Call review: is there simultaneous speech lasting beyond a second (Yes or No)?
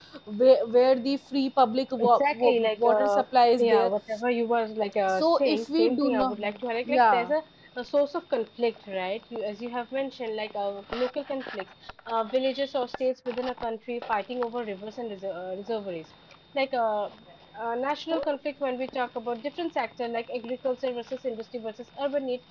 Yes